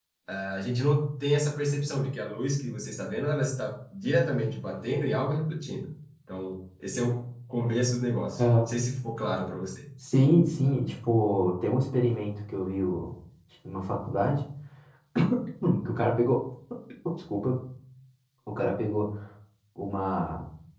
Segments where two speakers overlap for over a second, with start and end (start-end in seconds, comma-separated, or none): none